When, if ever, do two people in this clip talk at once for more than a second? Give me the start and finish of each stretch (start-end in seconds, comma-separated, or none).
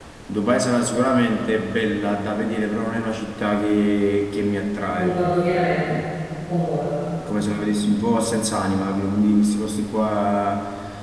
none